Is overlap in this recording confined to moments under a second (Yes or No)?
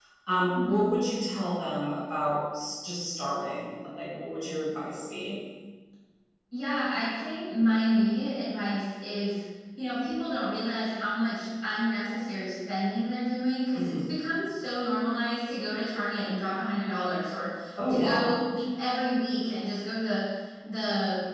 Yes